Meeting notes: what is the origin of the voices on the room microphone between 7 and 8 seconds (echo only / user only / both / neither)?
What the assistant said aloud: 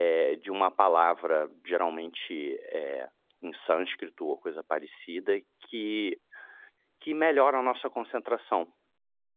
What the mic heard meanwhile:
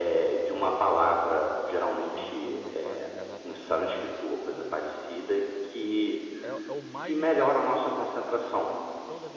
both